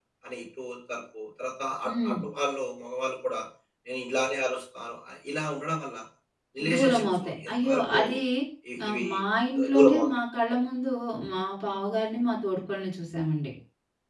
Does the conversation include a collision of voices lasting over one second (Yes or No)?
Yes